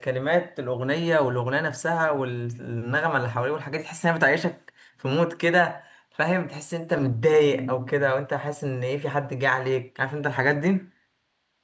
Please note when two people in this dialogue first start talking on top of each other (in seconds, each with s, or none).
none